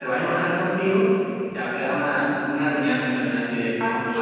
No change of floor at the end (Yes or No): No